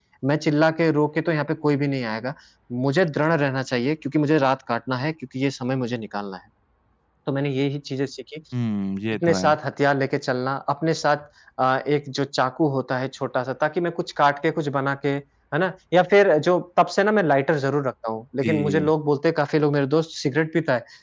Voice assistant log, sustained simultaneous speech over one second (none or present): none